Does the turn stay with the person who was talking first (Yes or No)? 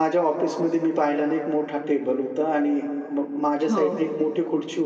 Yes